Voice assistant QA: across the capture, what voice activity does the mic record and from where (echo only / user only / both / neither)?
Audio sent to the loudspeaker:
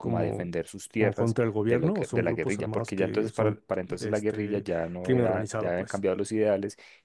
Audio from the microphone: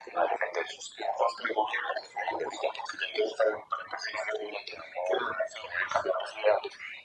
echo only